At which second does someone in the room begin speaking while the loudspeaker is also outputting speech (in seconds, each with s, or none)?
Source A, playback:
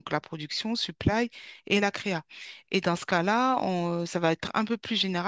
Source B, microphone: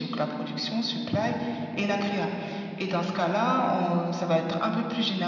none